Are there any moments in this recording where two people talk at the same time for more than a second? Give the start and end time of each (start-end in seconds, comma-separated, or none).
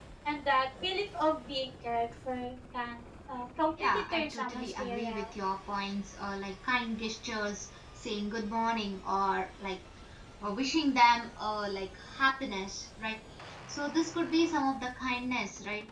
3.8-5.3